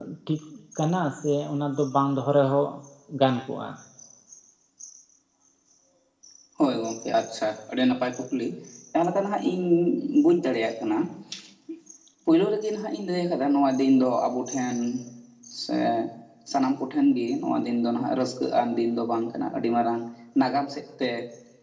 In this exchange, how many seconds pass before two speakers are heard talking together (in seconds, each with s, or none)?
none